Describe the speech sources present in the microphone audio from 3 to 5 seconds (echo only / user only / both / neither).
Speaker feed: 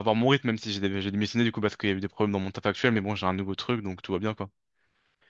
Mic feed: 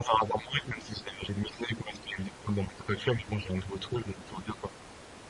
echo only